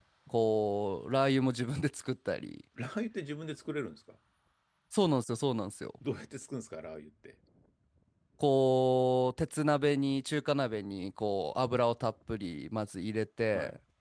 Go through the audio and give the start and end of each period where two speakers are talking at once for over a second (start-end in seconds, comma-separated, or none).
none